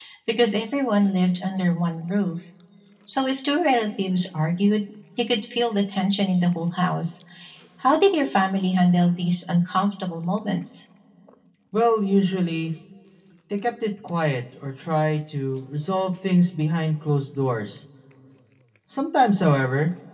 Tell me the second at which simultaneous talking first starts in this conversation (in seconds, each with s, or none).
none